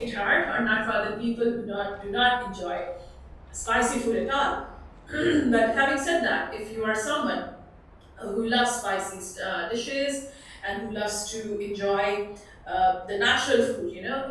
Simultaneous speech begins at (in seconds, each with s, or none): none